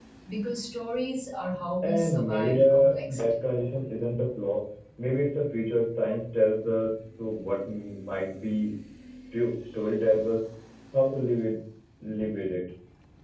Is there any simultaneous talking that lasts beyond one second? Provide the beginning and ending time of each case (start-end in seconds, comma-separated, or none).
1.8-3.2